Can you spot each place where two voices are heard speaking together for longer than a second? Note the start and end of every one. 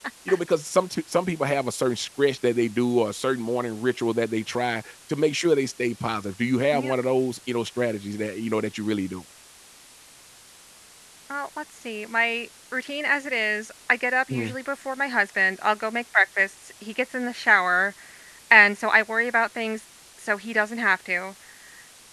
none

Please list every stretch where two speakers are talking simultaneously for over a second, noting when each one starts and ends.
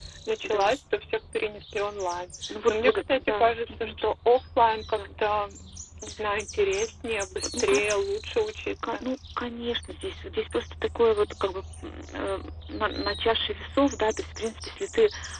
2.7-3.9

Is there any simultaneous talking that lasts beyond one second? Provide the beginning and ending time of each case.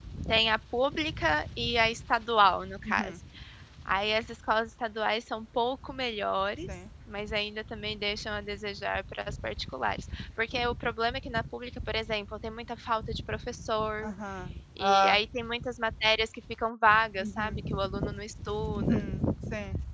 none

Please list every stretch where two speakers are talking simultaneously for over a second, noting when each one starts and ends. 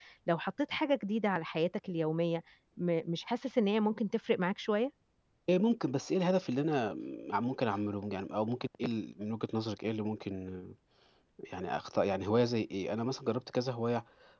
none

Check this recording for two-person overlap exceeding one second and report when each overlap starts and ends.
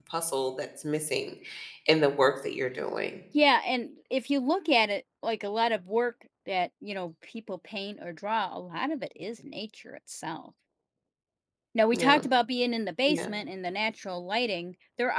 none

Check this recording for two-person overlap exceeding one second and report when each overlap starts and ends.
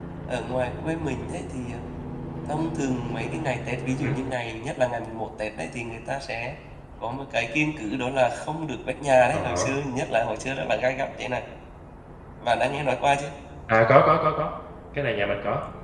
none

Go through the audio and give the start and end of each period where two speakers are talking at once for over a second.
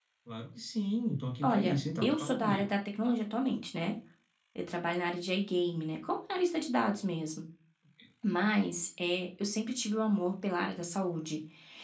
1.4-2.7

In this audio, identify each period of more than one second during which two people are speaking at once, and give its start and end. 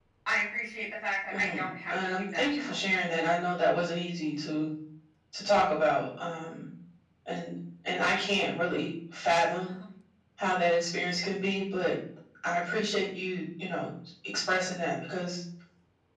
1.3-2.8

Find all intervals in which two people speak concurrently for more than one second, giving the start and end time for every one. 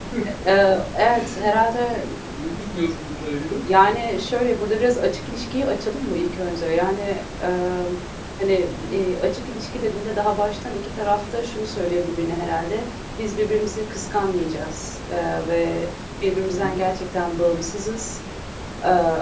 none

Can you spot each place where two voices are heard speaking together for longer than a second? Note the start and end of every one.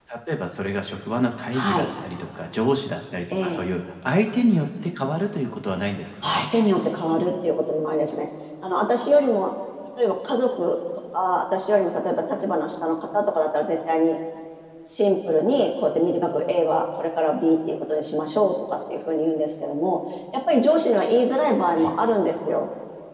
none

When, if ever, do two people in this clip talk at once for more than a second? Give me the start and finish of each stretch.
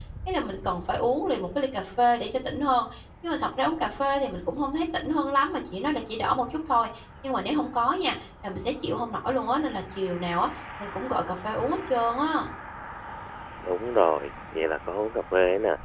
none

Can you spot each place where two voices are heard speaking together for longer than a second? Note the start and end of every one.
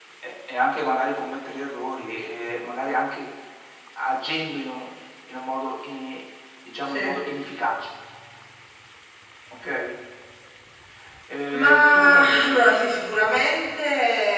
11.5-13.0

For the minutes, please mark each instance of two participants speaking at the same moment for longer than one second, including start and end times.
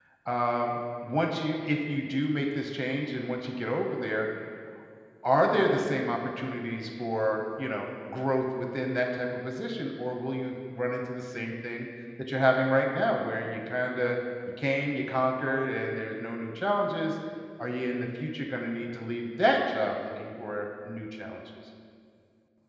none

